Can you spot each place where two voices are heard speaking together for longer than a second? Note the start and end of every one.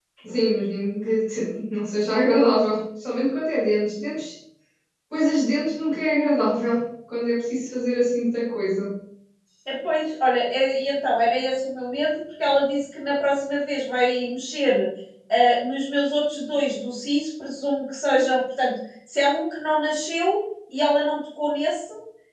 none

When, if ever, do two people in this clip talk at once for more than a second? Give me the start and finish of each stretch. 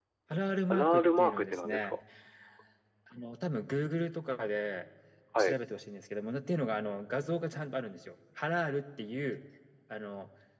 0.7-2.0

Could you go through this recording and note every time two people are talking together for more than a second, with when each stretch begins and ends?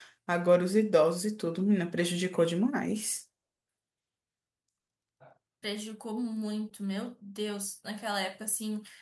none

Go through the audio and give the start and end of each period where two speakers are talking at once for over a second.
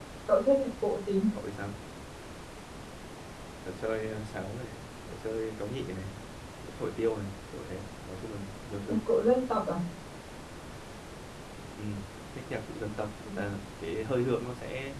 none

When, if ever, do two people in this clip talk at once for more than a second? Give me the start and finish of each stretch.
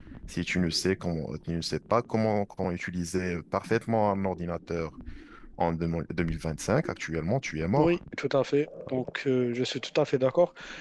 none

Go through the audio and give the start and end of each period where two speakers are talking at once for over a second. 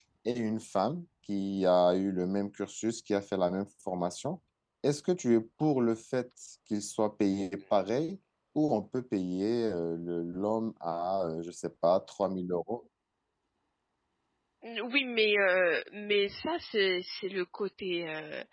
none

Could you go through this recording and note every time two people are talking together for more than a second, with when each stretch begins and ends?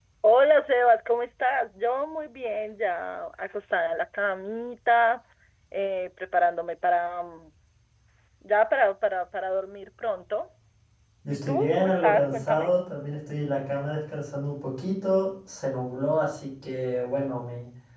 11.3-12.7

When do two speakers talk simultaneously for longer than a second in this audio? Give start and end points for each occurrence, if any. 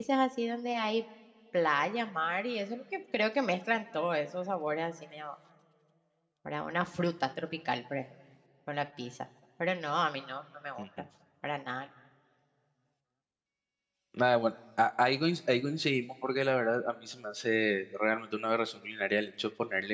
none

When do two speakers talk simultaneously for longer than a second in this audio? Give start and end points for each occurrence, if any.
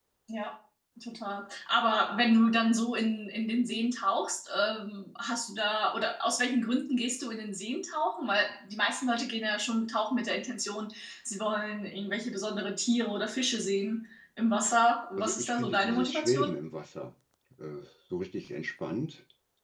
15.2-16.5

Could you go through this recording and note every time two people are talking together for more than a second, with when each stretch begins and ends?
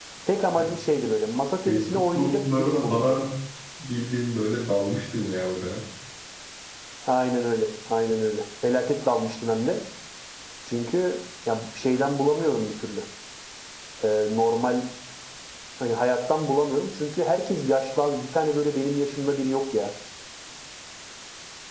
1.7-3.2

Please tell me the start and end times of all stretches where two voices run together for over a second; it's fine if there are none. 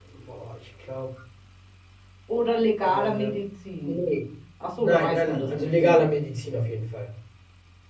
4.8-6.0

